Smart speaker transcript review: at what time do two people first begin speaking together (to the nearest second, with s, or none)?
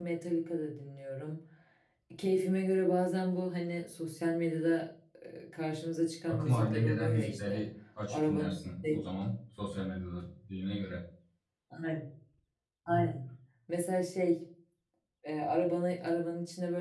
6 s